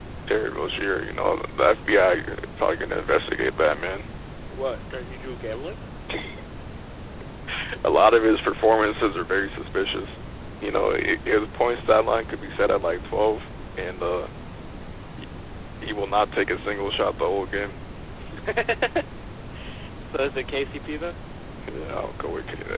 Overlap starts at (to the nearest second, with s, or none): none